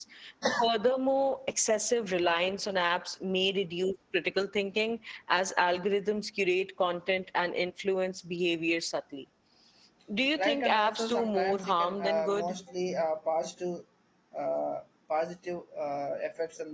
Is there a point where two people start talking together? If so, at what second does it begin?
10.4 s

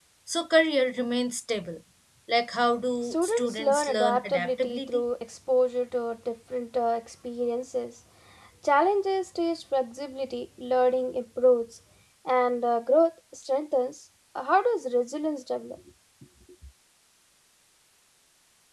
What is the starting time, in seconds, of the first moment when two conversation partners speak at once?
3.0 s

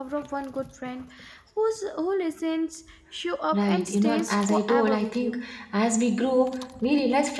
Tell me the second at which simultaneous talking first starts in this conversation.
3.5 s

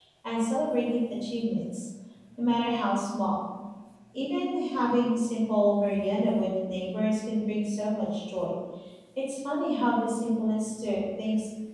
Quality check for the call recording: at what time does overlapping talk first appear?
none

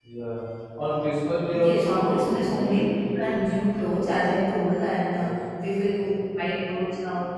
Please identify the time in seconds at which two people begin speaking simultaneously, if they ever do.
1.5 s

